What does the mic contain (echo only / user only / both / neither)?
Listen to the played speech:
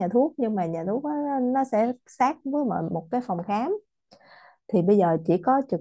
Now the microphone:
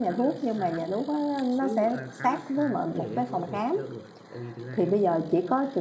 both